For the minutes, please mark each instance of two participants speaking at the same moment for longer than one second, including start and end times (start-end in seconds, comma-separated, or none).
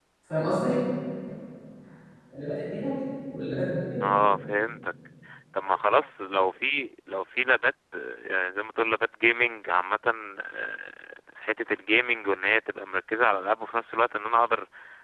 none